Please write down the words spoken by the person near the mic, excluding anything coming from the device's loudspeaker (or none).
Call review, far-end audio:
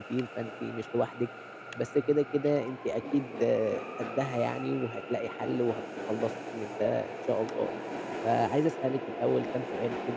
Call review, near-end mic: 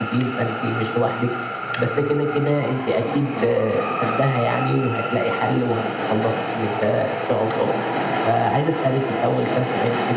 none